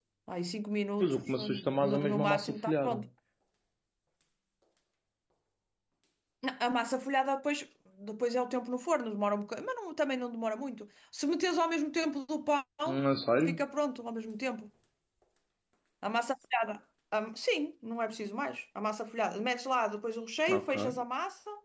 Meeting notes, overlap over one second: present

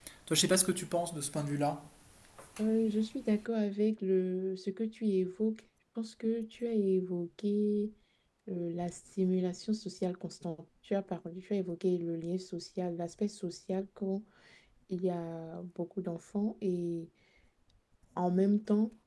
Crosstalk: none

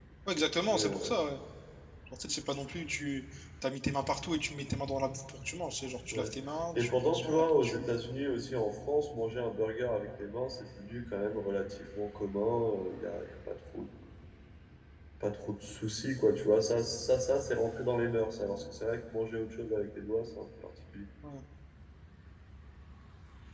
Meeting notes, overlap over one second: present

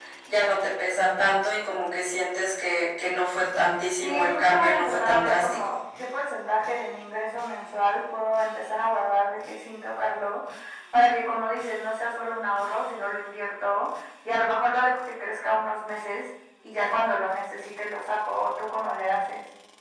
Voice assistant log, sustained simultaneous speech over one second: present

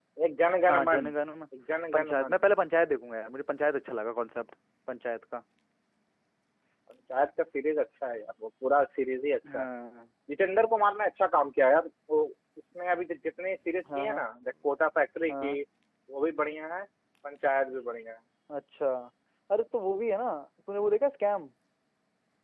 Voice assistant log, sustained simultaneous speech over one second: none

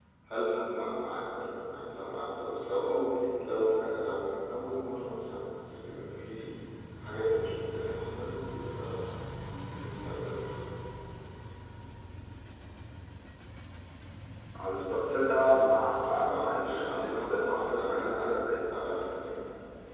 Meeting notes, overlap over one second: present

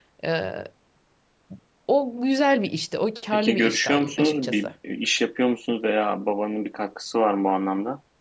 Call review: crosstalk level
present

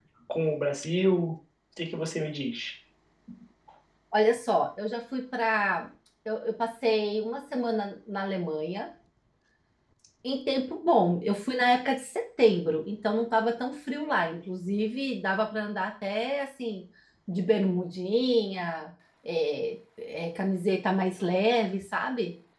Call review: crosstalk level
none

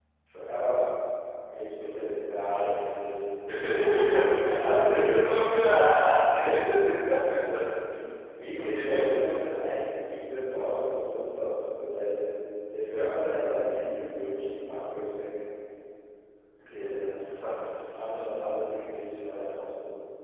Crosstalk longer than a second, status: present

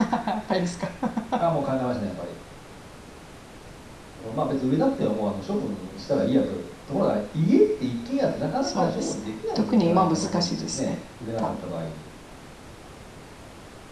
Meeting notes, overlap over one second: present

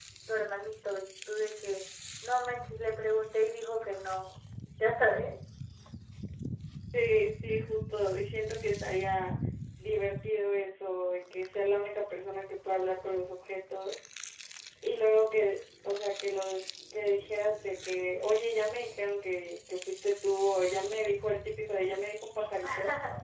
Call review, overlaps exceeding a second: none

